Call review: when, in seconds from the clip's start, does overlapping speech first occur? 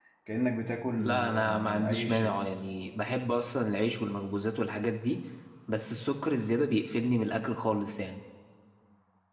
0.9 s

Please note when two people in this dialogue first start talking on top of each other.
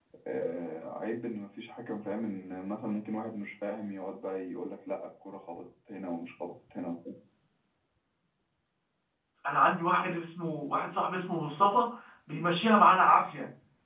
none

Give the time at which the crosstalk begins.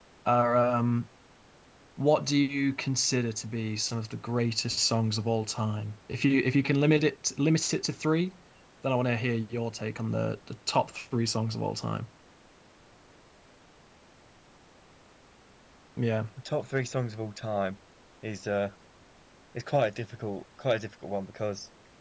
none

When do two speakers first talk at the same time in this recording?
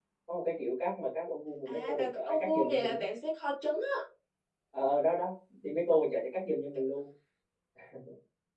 1.7 s

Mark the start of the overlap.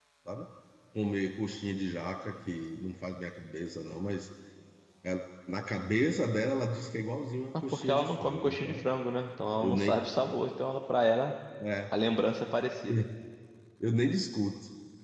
7.5 s

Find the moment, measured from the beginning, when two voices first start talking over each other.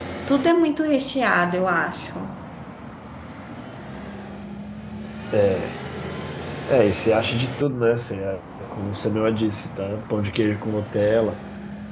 none

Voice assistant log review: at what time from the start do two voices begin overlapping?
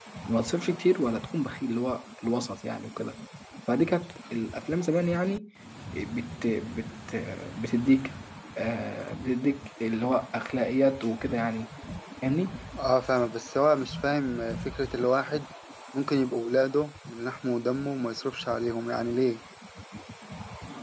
none

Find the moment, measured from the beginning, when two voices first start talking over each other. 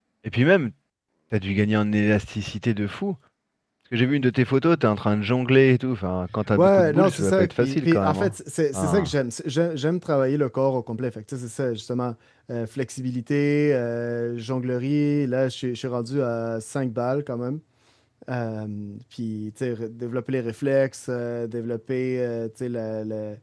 6.5 s

